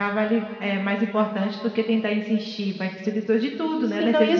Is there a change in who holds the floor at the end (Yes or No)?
Yes